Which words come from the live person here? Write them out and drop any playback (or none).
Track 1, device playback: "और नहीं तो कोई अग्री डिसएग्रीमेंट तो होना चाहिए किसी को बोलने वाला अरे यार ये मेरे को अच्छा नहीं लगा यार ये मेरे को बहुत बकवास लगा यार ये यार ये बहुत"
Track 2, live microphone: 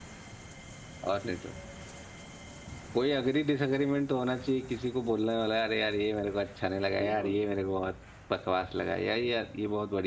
बिल्कुल